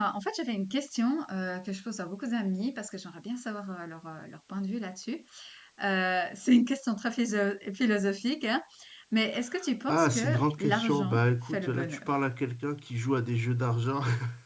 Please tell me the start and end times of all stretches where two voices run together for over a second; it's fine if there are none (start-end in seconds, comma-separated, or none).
9.9-12.1